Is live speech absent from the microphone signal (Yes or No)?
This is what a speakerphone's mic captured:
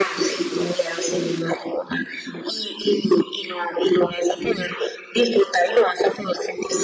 Yes